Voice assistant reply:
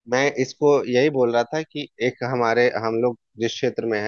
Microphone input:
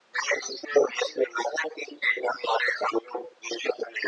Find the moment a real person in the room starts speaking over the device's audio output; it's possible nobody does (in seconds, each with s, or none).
none